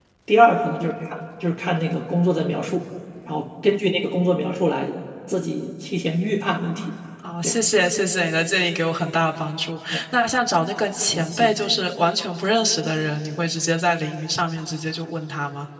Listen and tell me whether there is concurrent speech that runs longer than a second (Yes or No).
No